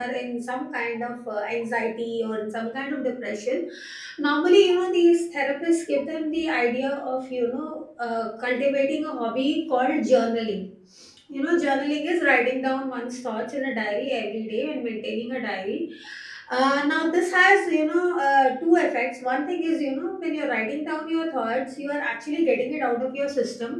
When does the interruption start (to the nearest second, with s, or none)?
none